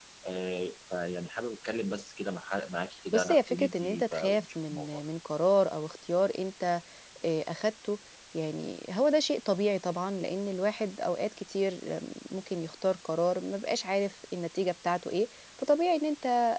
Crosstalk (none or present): present